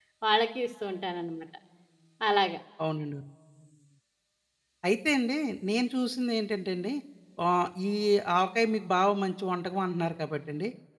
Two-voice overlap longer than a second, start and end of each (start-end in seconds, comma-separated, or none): none